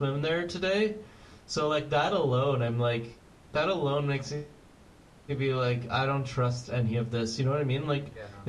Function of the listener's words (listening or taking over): listening